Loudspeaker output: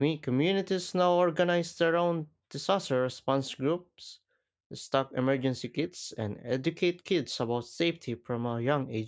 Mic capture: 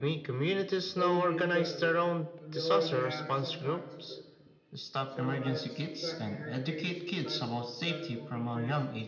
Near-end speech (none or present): present